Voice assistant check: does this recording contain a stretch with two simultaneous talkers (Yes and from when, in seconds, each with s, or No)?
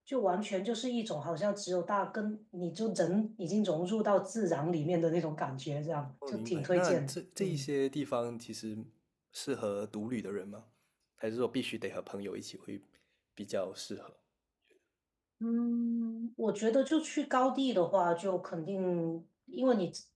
Yes, from 6.2 s